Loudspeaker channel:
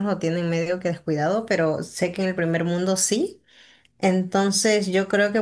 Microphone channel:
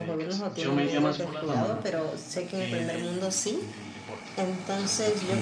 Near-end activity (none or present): present